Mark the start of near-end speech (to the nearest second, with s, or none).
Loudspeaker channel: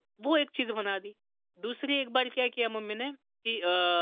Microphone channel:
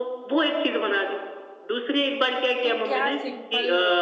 3 s